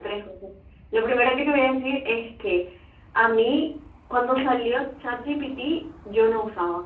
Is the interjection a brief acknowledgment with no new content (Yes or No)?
Yes